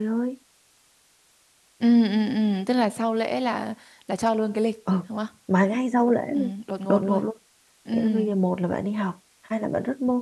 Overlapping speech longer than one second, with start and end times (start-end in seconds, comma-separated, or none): none